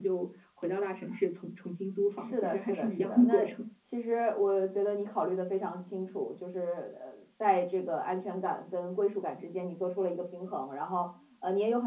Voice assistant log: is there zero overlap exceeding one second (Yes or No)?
No